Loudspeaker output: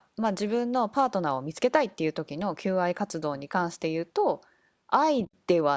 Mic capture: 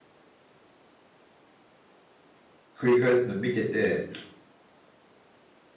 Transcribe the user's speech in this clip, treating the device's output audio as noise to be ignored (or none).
繰り返すのを見てて、